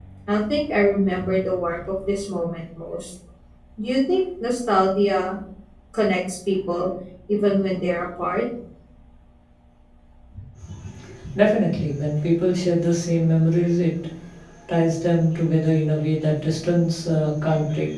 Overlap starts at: none

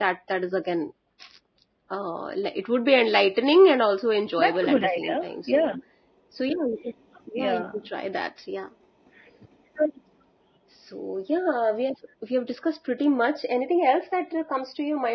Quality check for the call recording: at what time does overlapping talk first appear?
4 s

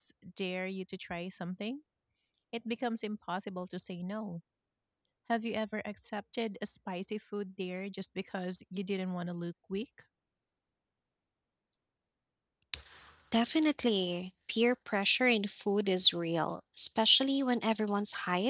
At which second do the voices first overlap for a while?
none

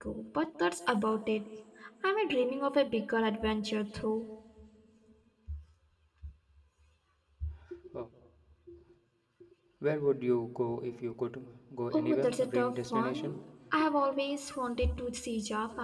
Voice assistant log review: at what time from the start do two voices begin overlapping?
12 s

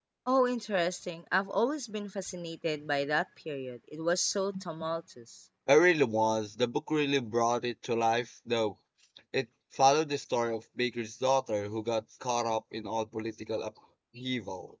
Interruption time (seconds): none

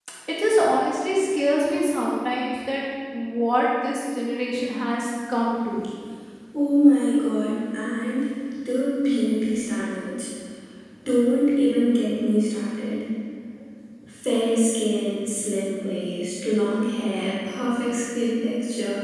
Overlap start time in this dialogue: none

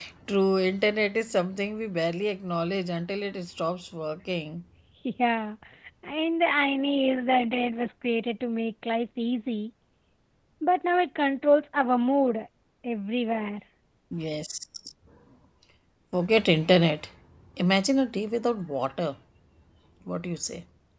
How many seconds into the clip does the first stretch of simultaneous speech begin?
none

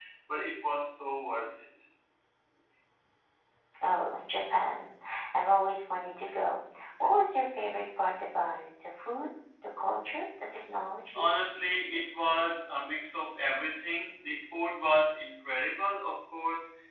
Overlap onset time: none

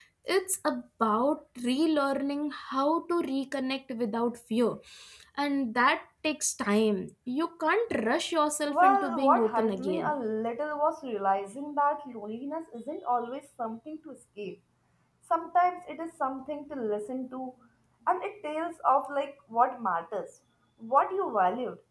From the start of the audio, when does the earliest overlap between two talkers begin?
9 s

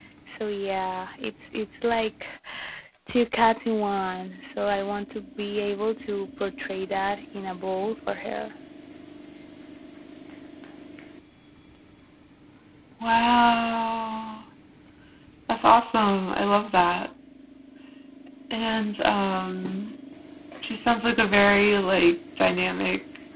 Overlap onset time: none

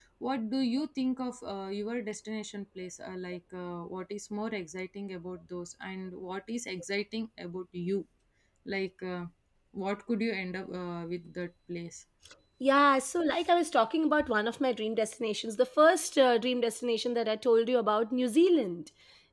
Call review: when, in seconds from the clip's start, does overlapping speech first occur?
none

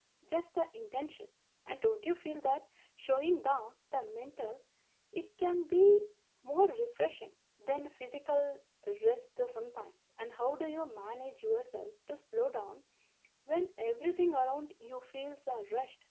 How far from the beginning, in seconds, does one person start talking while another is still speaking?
none

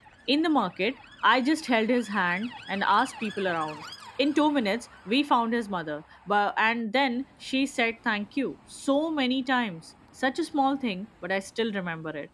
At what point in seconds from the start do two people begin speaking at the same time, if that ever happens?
none

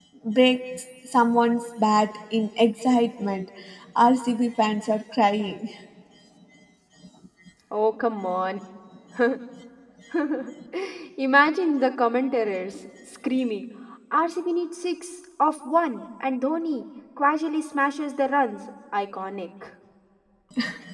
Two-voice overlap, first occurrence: none

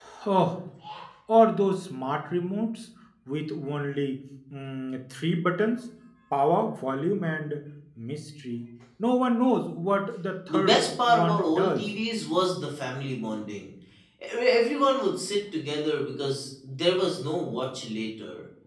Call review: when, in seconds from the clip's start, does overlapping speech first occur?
10 s

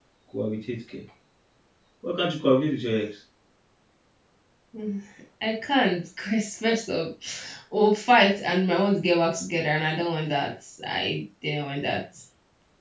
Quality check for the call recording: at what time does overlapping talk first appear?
none

